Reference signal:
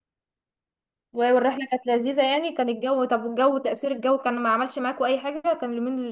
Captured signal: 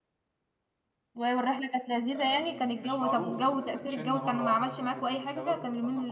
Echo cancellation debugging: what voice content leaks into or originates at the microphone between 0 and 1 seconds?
neither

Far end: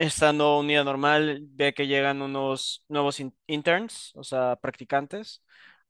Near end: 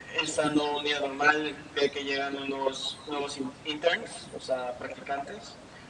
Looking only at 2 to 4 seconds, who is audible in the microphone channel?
echo only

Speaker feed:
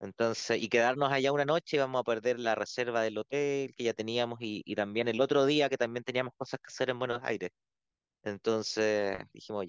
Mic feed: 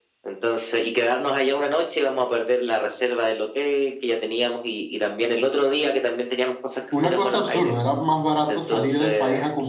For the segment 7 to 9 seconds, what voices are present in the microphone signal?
both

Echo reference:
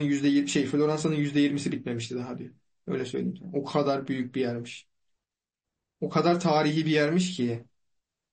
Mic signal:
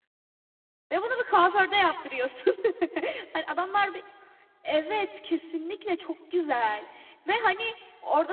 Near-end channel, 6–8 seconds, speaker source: user only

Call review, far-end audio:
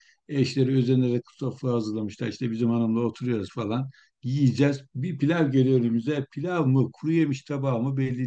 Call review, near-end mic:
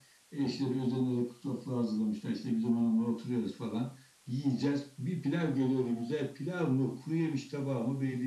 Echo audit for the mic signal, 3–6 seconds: echo only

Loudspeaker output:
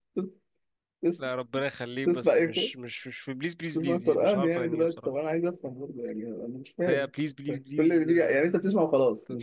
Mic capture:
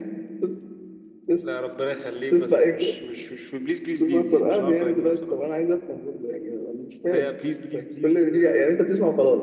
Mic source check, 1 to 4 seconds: echo only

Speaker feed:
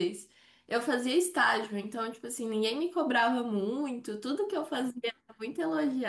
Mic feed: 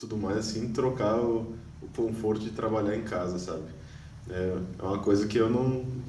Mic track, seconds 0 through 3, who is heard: user only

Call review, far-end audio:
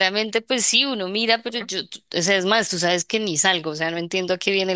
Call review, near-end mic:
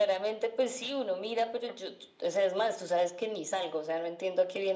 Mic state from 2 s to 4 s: echo only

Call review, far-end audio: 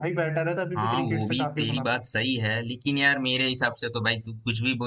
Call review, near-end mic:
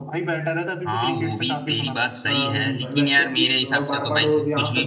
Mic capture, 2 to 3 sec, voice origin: both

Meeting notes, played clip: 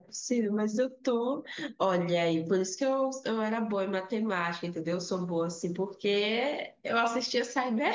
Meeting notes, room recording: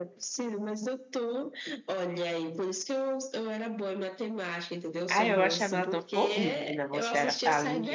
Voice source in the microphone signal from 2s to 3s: echo only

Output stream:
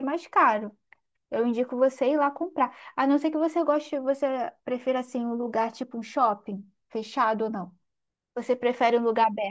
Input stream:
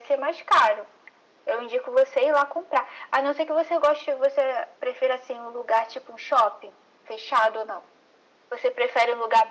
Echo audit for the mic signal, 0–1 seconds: echo only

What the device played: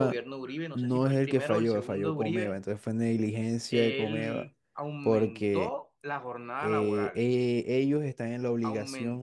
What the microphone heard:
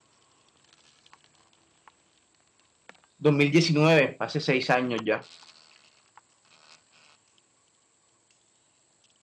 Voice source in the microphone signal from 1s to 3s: neither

